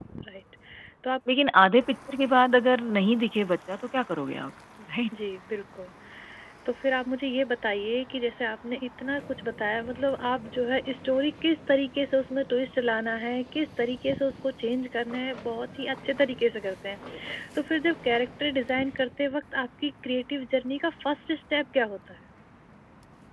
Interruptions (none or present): none